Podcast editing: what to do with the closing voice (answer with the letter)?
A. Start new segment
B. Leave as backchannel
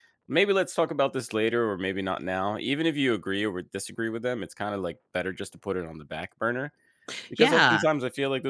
B